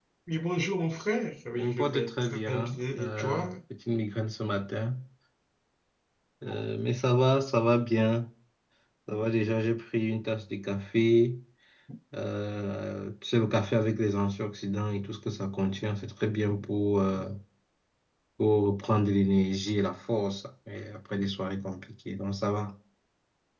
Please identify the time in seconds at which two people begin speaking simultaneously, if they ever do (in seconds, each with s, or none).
1.5 s